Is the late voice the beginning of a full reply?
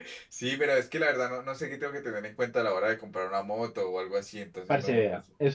Yes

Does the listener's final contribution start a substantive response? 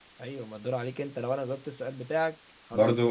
Yes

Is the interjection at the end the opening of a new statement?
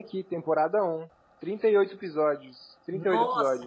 Yes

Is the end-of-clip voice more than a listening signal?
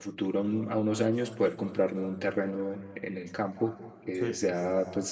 No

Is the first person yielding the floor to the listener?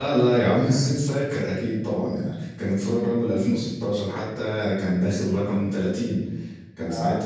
No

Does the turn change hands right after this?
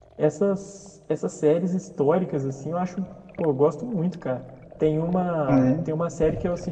No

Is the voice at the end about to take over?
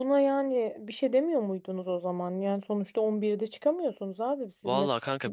Yes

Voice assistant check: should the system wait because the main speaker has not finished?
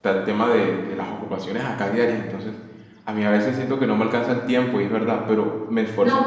No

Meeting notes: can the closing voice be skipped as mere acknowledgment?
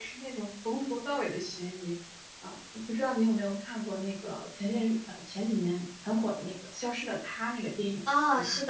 No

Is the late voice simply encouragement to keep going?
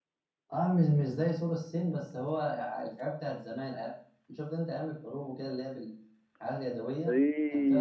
No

